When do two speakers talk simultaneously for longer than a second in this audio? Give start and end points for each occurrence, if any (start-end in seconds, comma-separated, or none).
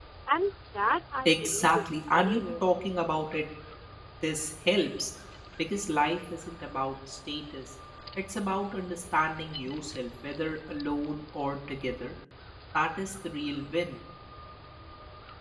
1.2-2.7